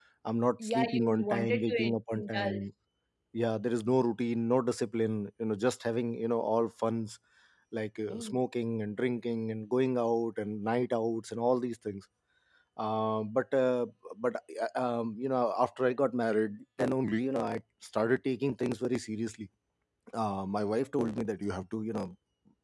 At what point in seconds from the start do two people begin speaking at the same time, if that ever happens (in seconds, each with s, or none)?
0.6 s